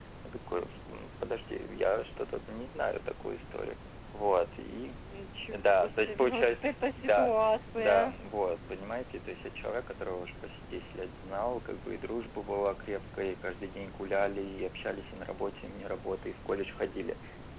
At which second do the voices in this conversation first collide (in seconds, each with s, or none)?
5.5 s